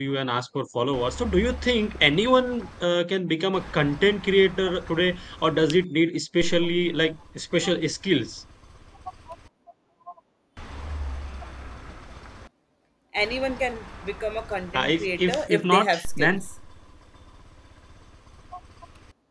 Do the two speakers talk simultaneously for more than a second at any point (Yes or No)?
Yes